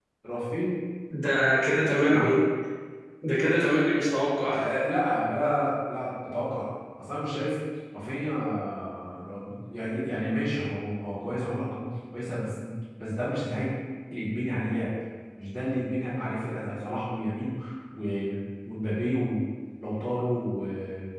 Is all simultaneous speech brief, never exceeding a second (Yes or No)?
Yes